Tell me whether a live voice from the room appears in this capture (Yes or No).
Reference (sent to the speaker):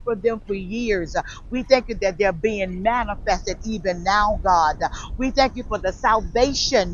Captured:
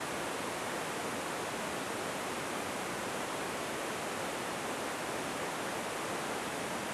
No